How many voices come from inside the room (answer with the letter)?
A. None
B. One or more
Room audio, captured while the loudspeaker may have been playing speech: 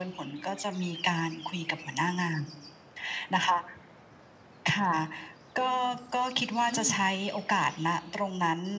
B